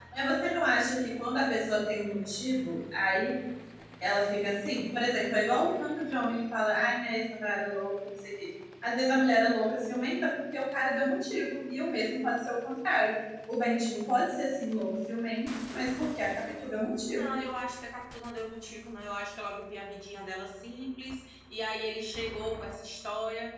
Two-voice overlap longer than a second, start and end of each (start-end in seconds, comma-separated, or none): none